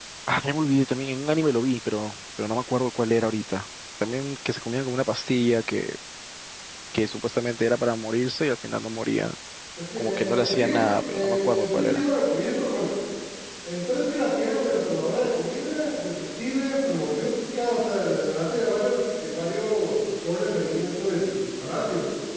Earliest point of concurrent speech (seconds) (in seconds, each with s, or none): 10.0 s